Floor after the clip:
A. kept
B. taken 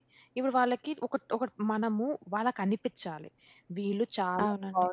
A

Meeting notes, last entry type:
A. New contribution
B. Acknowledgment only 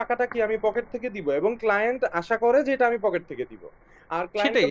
A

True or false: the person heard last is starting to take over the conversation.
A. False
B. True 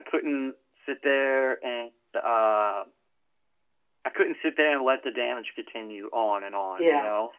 B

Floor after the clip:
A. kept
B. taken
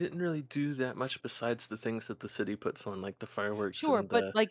B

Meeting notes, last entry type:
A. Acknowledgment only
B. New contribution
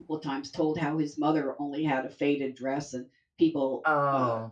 A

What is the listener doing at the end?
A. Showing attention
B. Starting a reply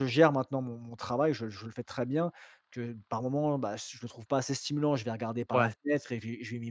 A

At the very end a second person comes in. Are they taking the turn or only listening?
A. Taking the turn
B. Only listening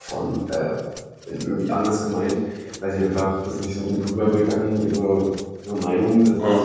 B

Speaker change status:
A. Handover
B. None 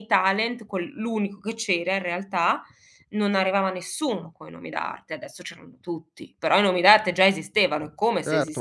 A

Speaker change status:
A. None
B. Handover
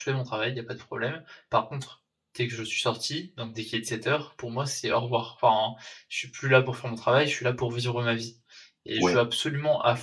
A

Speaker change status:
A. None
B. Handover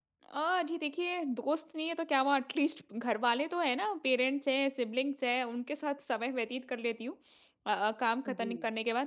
A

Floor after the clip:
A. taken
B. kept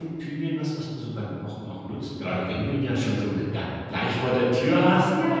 A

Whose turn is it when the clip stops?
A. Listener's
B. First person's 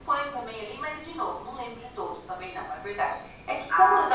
B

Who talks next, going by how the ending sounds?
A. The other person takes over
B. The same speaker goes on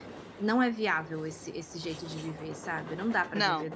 B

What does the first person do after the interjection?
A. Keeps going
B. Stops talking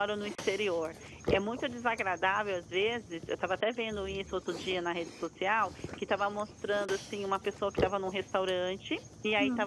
A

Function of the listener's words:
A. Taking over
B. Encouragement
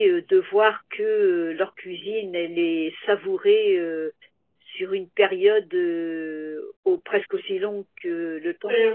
A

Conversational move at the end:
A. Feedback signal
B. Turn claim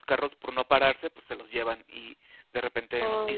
A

